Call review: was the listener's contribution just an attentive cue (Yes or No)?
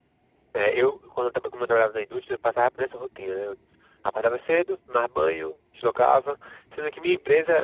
Yes